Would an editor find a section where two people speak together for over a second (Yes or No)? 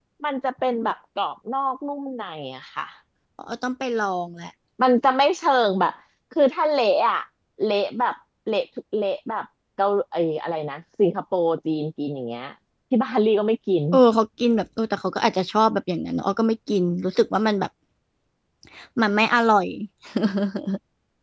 No